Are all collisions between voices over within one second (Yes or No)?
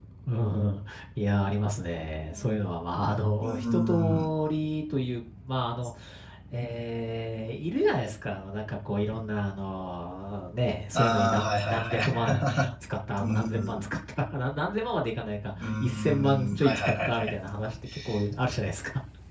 No